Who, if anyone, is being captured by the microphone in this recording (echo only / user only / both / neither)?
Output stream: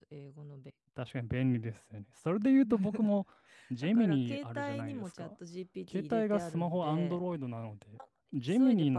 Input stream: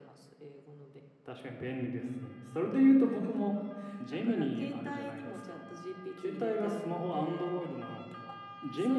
echo only